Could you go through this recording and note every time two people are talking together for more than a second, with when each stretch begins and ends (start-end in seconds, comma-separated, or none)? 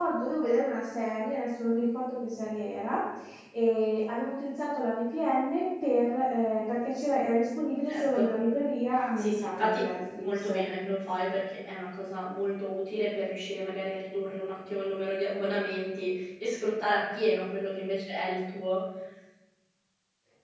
9.2-10.5